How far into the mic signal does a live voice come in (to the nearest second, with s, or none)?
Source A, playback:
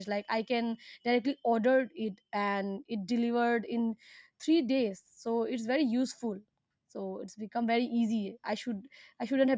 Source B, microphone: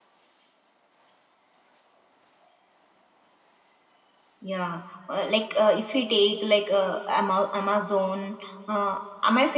4 s